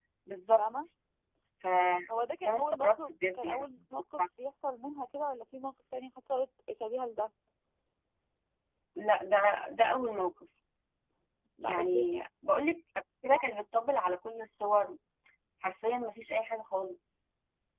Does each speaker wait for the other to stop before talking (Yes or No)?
No